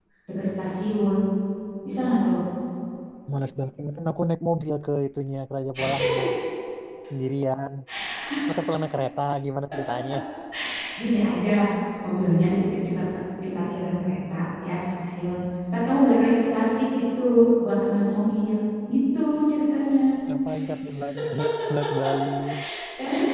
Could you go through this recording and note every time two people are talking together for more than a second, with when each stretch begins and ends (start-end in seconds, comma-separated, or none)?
none